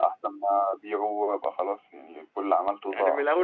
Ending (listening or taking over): taking over